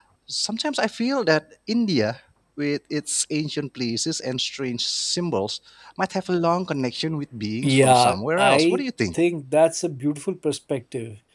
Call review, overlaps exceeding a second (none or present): present